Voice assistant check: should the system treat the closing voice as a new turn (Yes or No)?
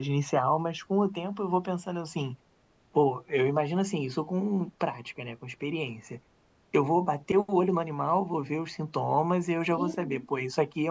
No